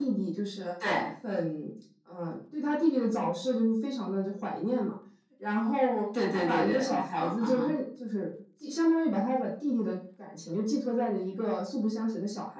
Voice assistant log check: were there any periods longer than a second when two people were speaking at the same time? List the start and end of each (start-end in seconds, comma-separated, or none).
6.3-7.6